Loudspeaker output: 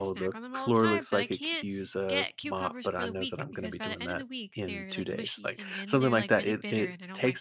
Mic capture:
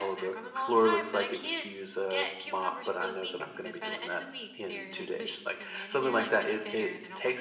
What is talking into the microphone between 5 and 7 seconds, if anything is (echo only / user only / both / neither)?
echo only